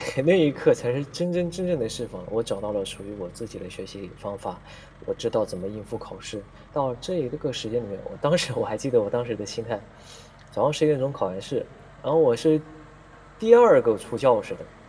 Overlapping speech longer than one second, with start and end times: none

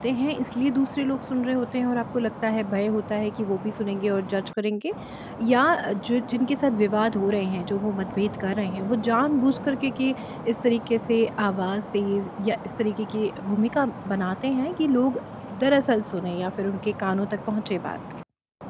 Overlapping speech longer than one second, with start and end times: none

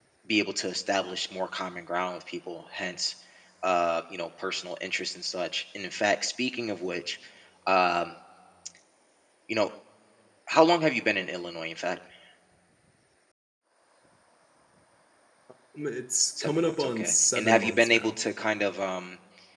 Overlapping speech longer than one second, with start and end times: 16.4-18.2

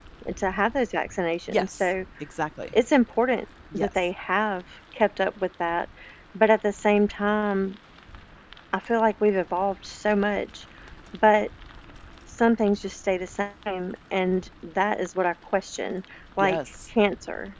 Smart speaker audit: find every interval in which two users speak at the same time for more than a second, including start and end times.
none

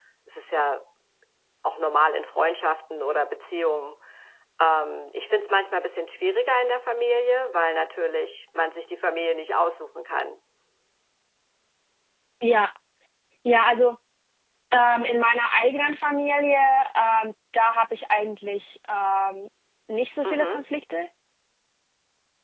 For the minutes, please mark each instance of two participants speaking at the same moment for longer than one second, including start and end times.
none

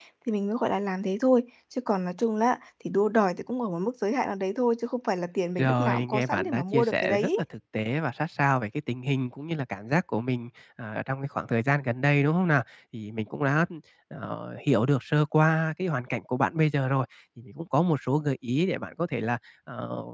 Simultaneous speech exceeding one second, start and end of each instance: 5.6-7.3

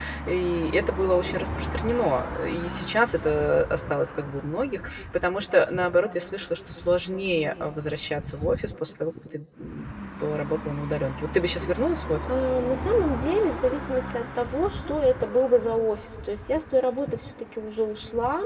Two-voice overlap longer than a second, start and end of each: none

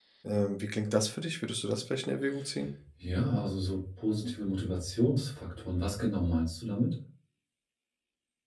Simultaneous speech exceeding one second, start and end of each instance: none

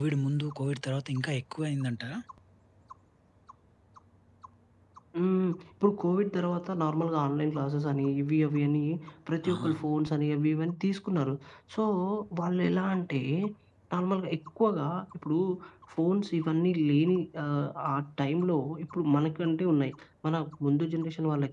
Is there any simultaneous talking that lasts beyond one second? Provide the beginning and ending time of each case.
none

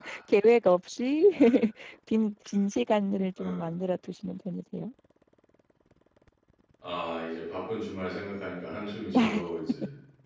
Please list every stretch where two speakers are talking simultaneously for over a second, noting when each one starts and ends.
none

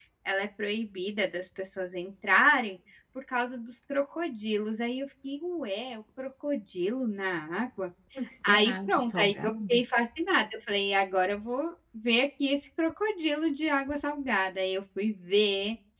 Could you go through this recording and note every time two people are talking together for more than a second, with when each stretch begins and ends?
8.5-9.8

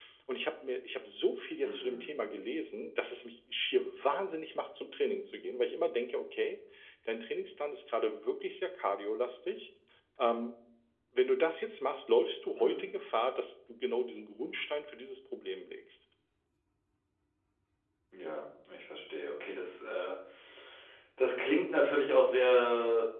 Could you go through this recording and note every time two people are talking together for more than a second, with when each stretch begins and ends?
none

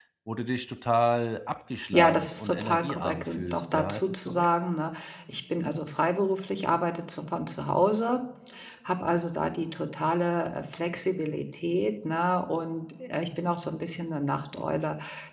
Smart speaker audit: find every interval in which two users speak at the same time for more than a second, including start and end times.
1.9-4.5

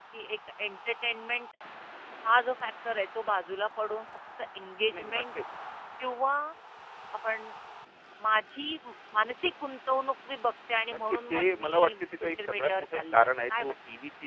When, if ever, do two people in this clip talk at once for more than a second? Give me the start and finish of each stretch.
11.1-13.7

